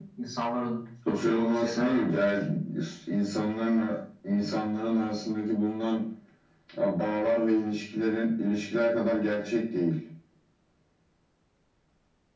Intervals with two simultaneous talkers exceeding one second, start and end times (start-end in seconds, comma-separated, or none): 1.1-2.4